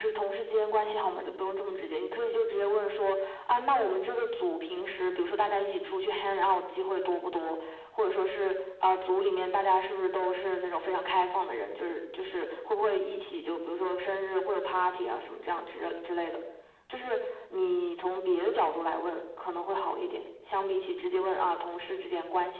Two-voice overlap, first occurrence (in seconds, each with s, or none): none